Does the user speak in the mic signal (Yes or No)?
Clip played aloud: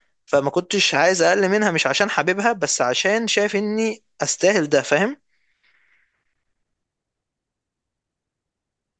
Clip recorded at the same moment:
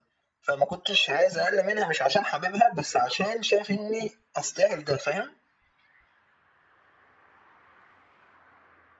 No